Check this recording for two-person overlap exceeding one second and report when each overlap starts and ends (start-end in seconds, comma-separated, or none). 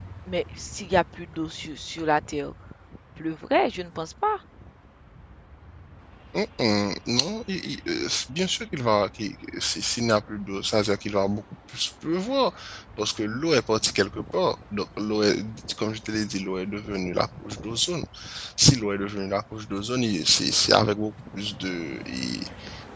none